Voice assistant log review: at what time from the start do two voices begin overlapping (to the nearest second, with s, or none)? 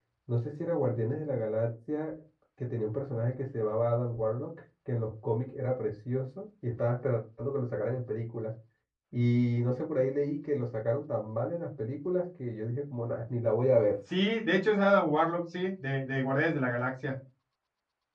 none